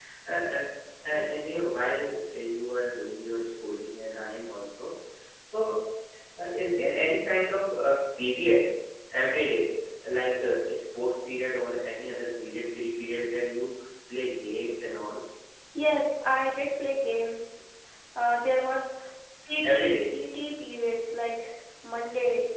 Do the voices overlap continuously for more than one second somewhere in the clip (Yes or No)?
No